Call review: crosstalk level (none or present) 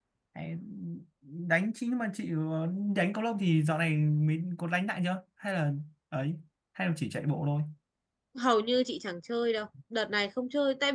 none